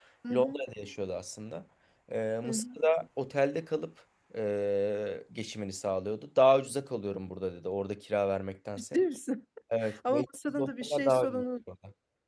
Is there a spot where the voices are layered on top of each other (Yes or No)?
Yes